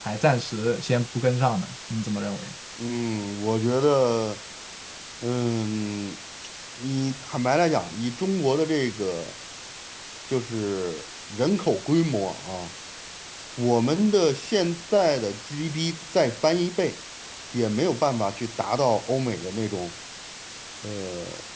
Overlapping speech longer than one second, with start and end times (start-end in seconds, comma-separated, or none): none